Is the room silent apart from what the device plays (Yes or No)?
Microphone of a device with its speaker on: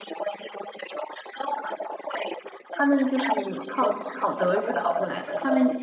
No